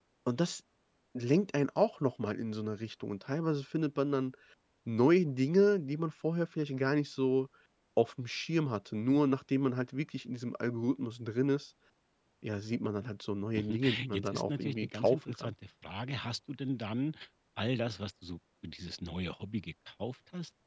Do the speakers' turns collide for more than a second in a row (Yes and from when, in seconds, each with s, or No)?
Yes, from 13.5 s